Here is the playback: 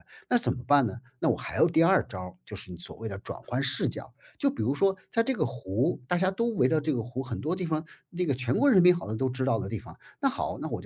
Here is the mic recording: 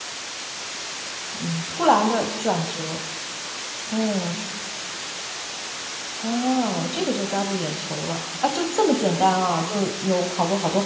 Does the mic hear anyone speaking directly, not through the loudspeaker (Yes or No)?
Yes